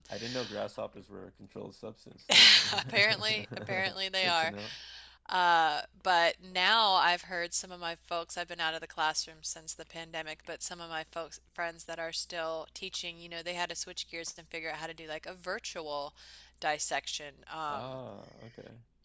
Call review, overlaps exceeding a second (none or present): present